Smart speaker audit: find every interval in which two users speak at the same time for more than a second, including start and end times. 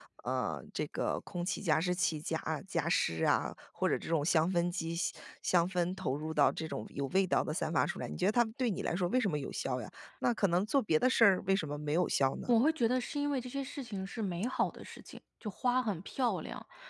none

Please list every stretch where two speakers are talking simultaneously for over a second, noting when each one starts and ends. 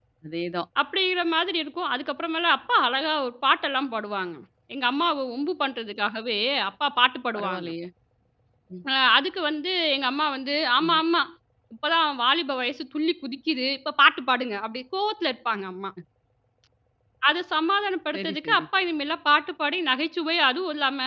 none

